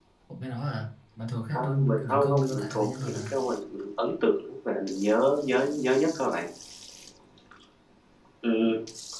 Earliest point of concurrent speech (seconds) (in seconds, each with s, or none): 1.5 s